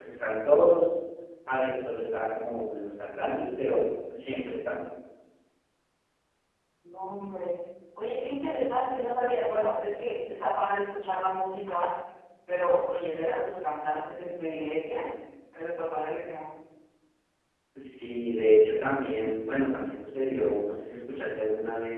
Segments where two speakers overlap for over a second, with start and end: none

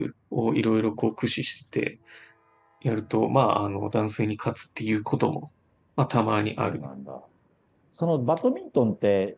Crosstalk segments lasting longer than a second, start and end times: none

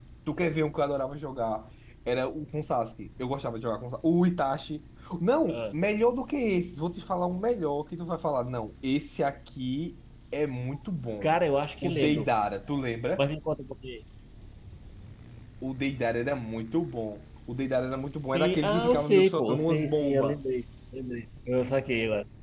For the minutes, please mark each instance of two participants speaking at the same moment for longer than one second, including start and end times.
18.3-20.4

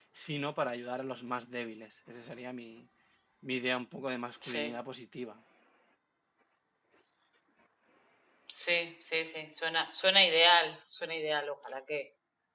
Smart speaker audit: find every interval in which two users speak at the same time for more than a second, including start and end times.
none

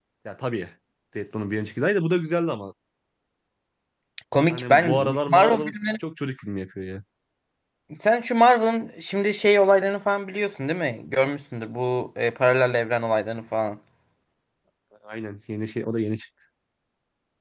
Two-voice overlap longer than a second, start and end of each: 4.5-5.8

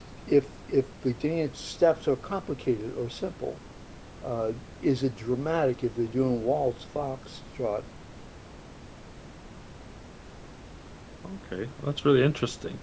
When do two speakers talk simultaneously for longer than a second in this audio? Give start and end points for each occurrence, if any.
none

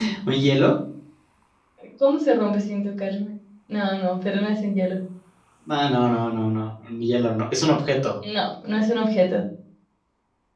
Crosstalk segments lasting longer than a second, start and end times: none

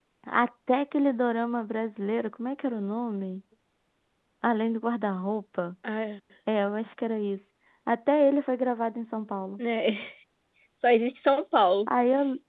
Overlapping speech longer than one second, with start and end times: none

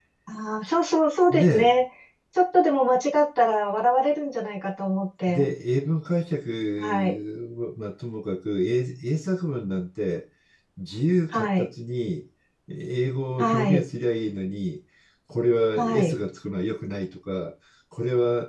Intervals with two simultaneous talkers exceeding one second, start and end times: none

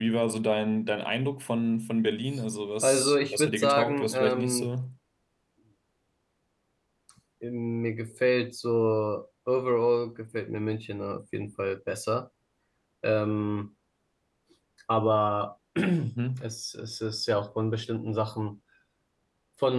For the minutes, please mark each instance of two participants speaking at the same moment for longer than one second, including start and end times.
2.8-4.7

